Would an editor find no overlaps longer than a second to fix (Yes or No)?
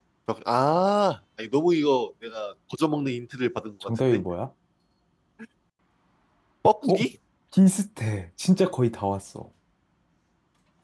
Yes